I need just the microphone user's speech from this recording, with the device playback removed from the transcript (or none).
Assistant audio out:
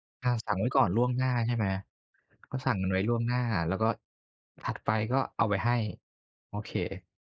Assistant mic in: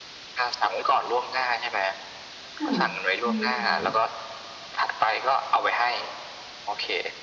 ค่ะ ใช่ ๆ